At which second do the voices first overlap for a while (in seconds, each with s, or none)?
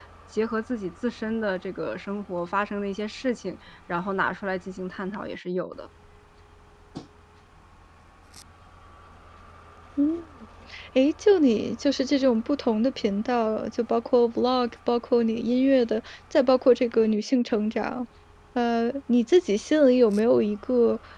none